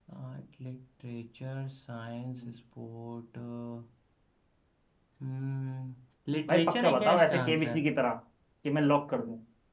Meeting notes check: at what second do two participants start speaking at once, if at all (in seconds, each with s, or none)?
6.5 s